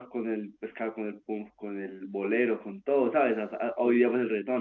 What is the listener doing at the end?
listening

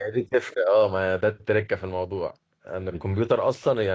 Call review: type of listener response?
listening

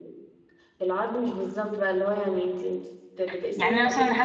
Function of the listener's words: taking over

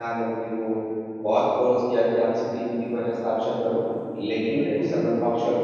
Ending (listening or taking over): listening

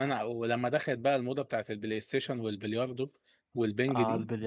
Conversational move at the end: taking over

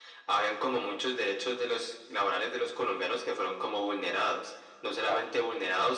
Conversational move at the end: listening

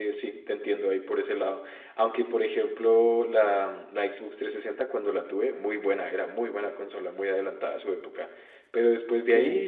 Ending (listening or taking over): listening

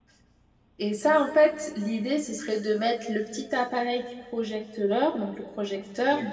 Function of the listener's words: listening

